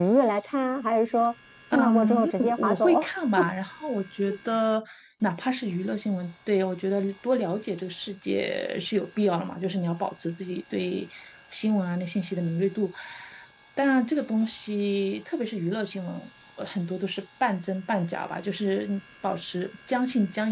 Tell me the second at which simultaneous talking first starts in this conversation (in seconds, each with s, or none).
1.7 s